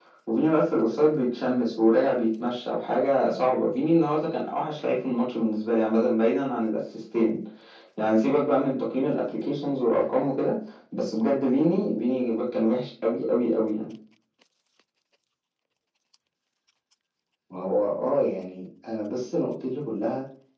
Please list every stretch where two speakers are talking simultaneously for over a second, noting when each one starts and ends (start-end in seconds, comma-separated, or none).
none